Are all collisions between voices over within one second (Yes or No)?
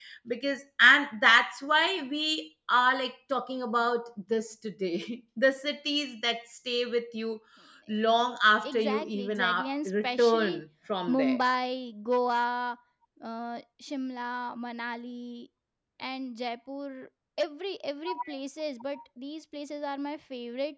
No